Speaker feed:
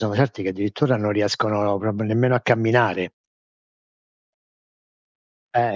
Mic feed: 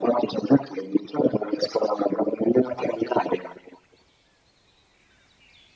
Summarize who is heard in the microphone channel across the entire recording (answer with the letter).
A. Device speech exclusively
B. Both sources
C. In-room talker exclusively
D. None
A